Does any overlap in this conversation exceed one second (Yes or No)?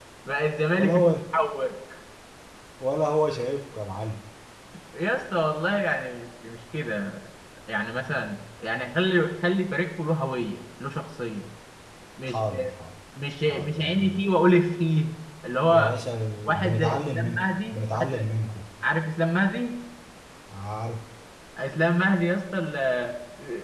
Yes